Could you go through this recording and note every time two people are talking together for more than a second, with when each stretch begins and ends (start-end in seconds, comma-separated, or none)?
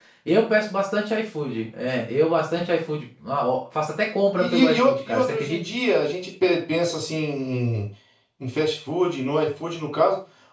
4.4-5.6